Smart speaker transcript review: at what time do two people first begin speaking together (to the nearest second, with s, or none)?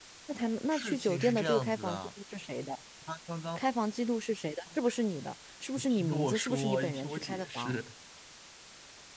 1 s